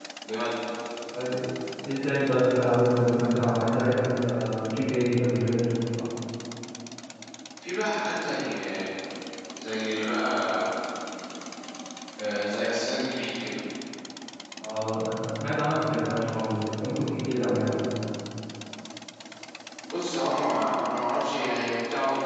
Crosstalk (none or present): none